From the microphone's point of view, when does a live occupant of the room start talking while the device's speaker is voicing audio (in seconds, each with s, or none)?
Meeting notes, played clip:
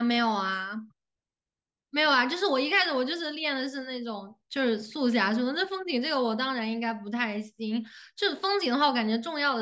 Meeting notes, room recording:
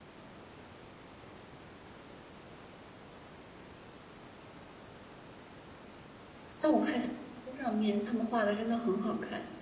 6.6 s